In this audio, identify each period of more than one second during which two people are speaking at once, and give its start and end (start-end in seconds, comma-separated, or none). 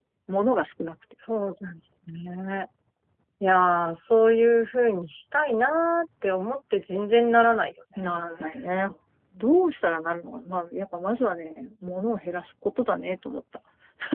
none